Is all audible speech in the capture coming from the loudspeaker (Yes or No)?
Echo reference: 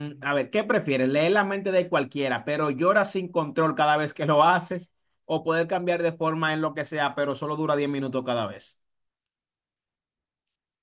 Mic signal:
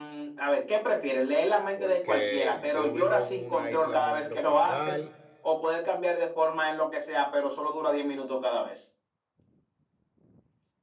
No